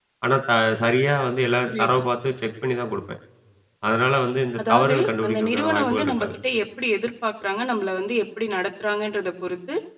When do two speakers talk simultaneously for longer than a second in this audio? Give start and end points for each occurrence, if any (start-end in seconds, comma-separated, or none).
4.7-6.3